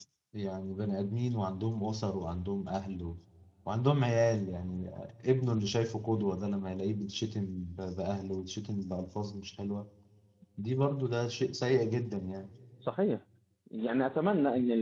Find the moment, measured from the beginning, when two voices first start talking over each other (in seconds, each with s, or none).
none